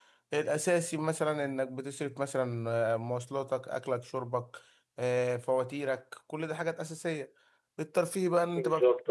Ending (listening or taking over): listening